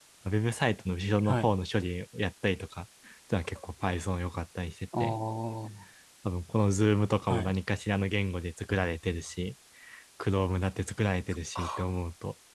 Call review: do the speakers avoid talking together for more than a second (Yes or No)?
Yes